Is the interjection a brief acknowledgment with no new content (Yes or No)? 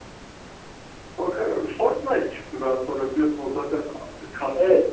Yes